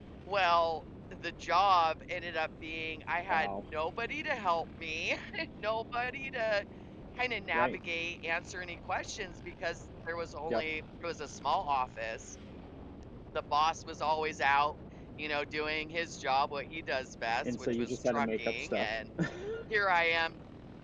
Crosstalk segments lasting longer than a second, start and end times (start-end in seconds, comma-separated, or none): 17.5-18.9